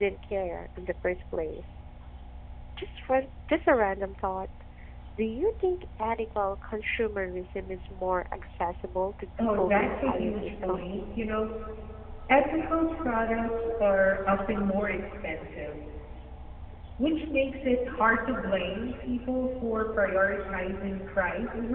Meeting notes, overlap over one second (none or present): present